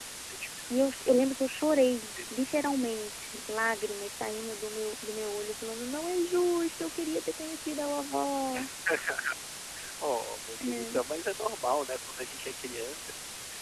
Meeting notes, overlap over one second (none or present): none